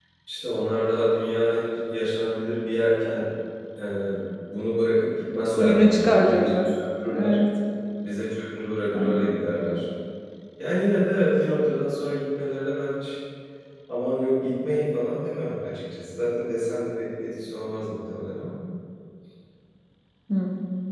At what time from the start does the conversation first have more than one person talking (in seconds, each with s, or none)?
5.4 s